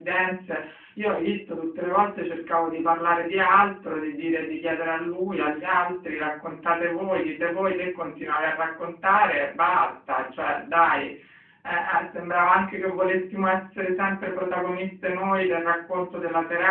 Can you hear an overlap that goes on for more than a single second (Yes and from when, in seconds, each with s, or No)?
No